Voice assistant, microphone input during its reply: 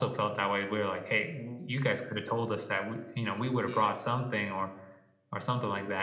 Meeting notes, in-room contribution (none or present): present